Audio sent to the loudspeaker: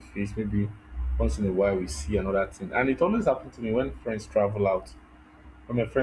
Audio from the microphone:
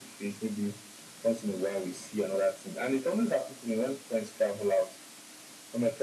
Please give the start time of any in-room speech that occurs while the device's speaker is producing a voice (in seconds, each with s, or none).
none